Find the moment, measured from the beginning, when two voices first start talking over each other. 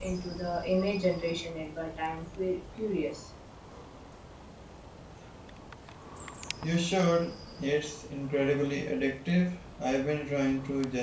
none

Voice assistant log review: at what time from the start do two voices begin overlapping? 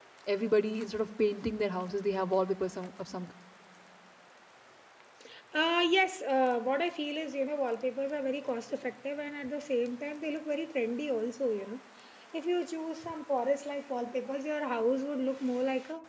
none

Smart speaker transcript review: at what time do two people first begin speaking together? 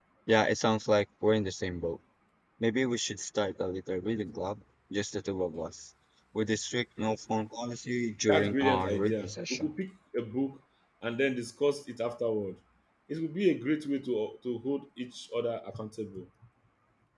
8.3 s

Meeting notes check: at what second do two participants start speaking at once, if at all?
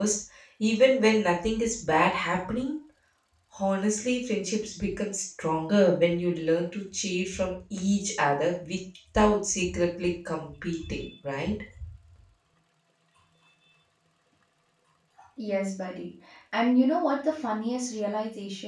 none

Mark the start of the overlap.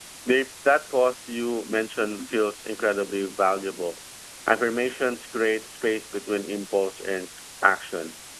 none

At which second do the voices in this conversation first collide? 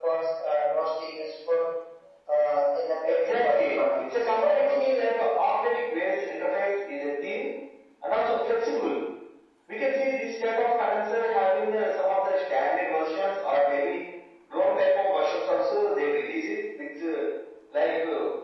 3.0 s

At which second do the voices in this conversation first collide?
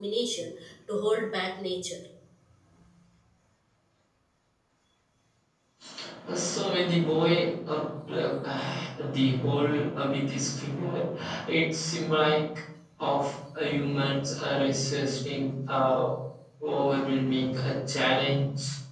none

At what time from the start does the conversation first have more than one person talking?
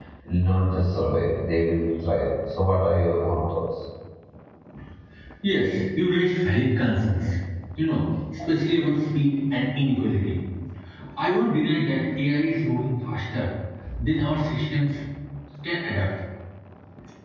none

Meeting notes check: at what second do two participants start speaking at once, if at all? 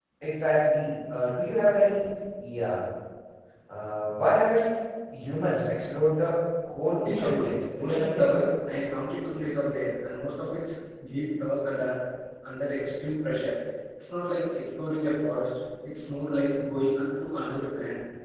7.0 s

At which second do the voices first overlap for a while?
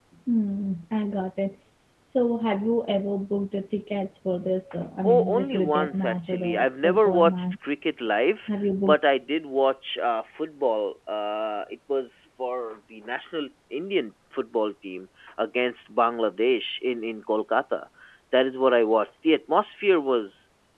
5.0 s

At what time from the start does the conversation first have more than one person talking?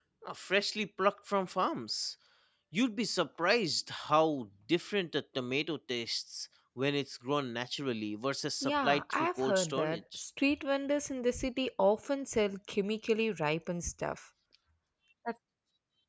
8.6 s

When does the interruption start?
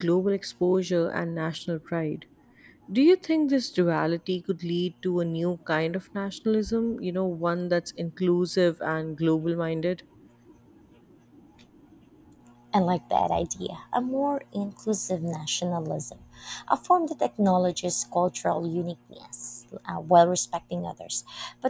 none

